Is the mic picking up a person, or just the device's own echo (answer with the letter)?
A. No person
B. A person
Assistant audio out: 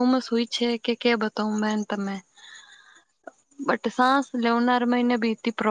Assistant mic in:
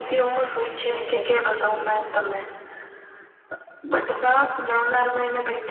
B